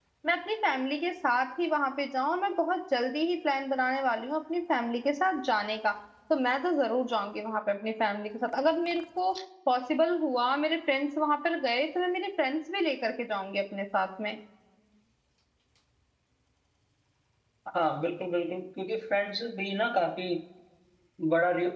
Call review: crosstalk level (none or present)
none